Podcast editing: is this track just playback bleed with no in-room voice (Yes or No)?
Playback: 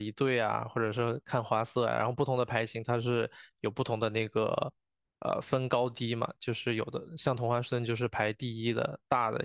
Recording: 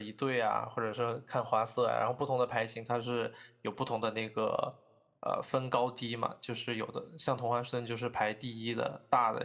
Yes